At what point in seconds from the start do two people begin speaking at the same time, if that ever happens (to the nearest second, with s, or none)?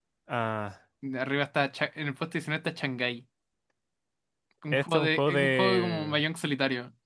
5 s